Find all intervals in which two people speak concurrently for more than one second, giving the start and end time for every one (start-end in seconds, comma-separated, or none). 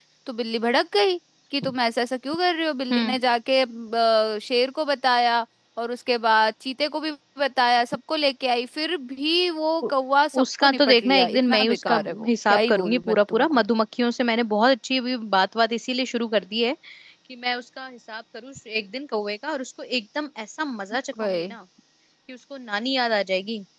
10.4-13.6